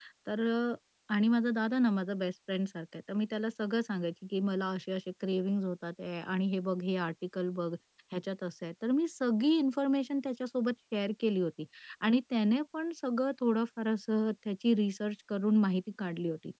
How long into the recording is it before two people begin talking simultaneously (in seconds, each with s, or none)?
none